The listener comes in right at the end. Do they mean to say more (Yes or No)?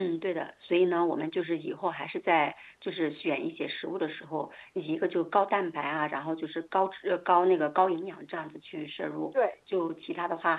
No